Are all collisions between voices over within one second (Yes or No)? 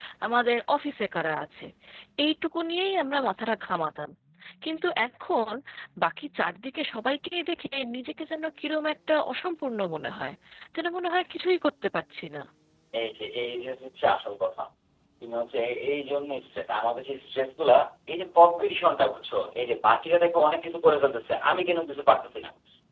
Yes